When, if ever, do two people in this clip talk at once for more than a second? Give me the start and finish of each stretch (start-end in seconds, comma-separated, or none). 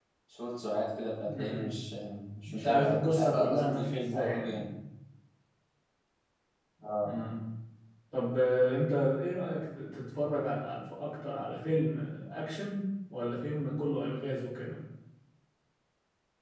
2.5-4.7